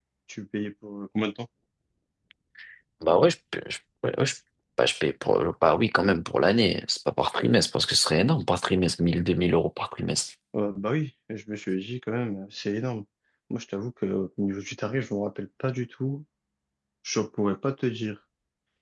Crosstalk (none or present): none